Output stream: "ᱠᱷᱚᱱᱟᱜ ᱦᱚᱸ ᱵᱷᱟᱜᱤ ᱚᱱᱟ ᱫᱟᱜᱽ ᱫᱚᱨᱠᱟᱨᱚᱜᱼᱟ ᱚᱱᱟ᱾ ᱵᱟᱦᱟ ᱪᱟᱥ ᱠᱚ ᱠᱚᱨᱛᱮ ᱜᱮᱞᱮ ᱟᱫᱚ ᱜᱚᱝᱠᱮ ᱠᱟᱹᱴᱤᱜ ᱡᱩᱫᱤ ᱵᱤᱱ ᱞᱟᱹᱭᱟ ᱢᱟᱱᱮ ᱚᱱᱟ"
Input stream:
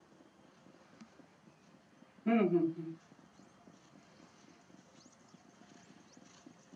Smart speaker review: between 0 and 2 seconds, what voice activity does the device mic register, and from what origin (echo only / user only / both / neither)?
neither